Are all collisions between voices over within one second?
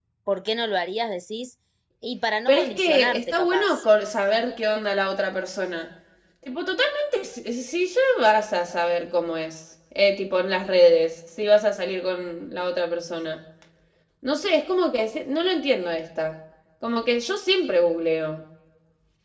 No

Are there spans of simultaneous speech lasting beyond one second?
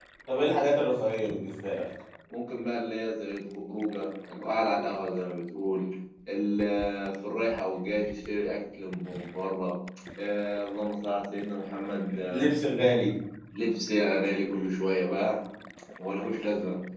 No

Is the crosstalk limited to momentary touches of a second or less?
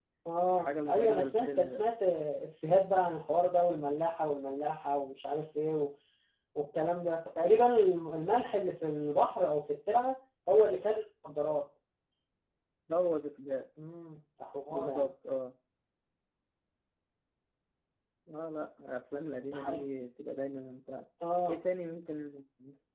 No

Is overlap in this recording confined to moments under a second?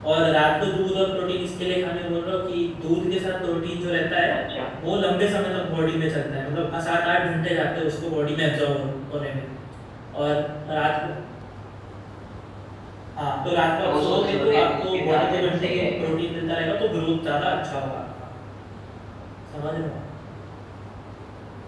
No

